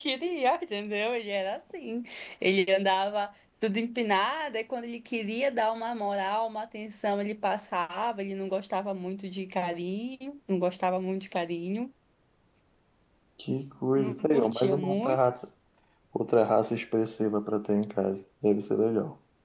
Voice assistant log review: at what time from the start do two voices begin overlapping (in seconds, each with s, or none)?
14.0 s